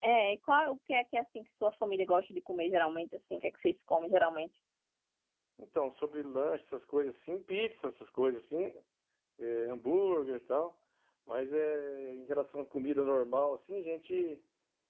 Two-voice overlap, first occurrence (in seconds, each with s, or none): none